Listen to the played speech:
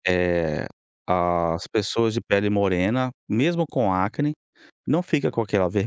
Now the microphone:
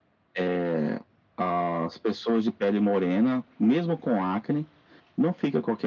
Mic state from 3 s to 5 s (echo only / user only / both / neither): echo only